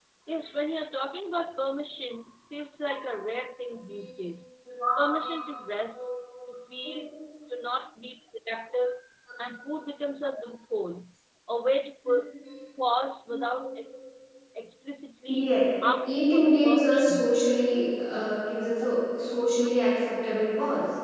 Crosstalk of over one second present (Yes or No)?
Yes